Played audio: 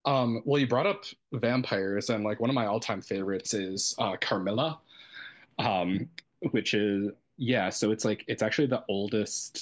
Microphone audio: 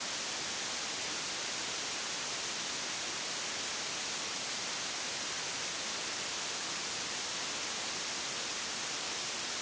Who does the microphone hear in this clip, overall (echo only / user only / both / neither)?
neither